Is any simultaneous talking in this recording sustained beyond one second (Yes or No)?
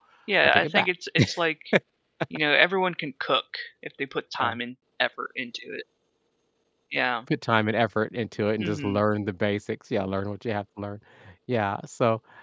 No